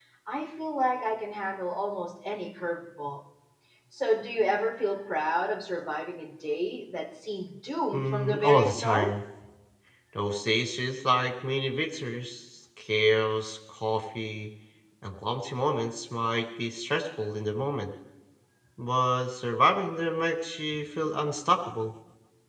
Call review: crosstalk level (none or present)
present